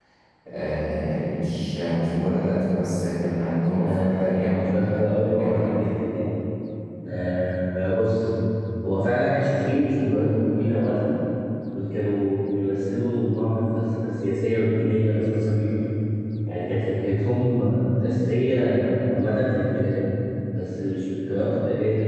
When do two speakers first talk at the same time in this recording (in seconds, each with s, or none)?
3.7 s